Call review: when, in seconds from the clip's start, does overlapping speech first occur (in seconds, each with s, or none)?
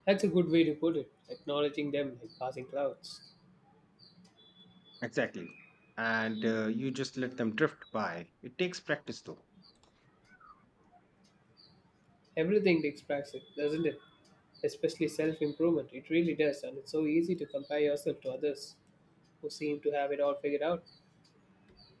none